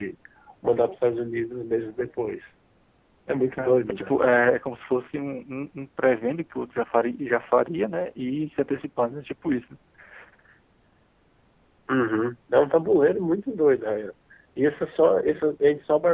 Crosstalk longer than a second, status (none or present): none